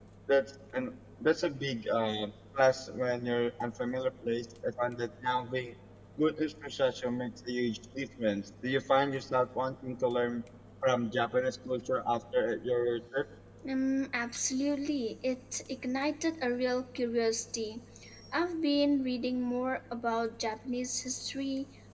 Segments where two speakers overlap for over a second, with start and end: none

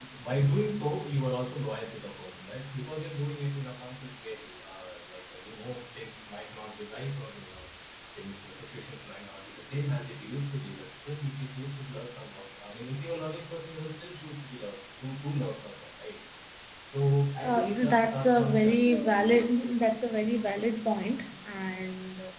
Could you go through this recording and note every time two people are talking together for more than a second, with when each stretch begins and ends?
17.4-19.3

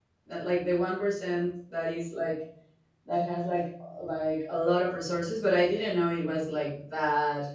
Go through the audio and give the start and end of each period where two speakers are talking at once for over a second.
none

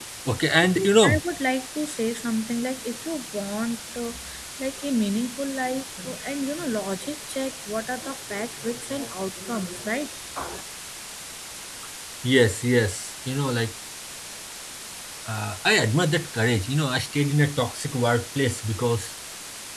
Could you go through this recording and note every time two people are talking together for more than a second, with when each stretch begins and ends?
none

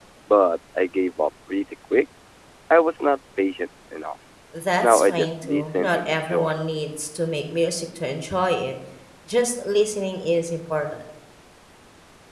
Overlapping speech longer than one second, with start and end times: 4.8-6.6

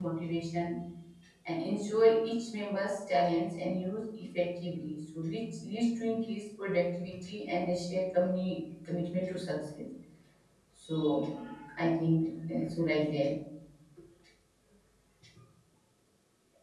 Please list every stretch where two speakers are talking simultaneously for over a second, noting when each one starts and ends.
none

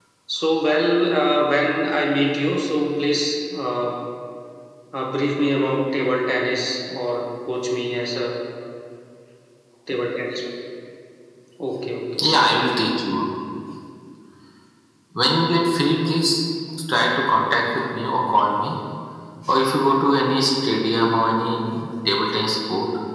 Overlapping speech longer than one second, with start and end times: none

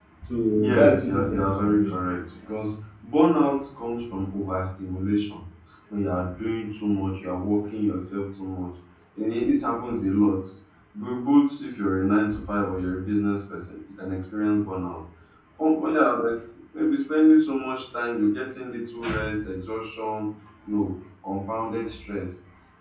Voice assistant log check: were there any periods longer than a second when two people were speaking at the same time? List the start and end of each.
0.6-2.0

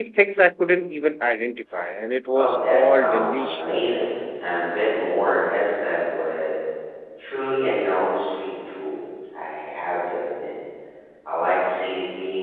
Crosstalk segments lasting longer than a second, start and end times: 2.4-4.0

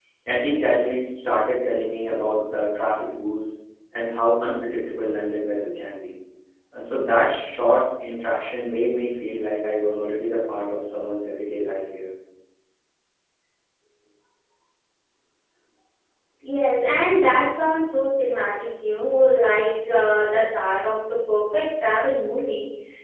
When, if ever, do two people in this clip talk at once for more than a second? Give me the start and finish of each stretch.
none

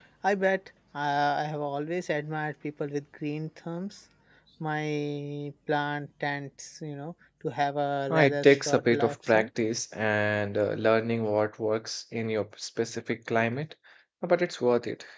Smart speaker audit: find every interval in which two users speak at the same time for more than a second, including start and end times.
8.1-9.5

